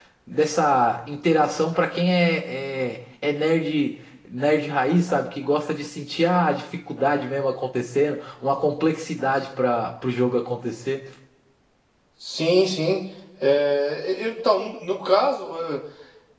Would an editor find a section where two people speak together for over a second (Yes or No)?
No